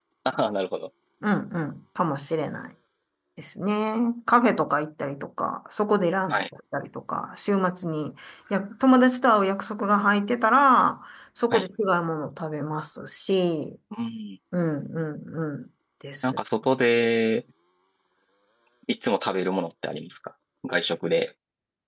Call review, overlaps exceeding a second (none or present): none